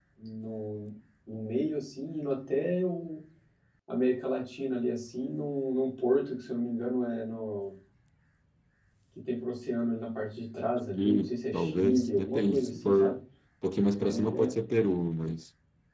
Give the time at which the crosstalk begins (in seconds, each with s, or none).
11.0 s